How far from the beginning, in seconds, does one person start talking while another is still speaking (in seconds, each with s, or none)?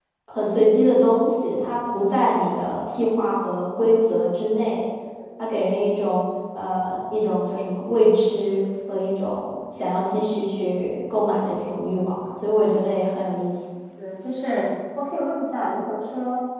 none